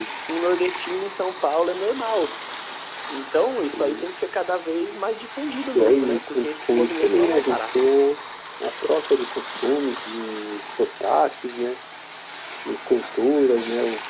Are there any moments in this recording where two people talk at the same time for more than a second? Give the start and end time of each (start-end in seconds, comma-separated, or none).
5.8-7.8